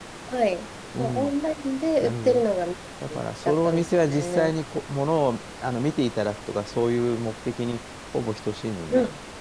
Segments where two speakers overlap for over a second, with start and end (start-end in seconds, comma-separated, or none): 3.2-4.5